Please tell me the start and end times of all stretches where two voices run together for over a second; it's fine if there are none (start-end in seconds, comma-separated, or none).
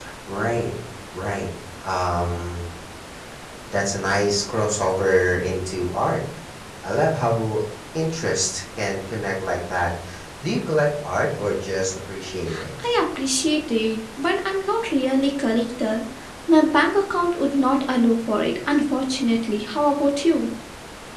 none